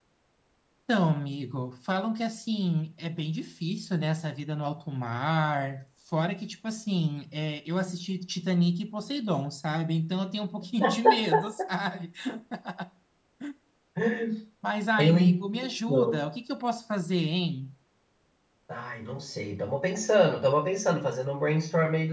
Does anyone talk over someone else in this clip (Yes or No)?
Yes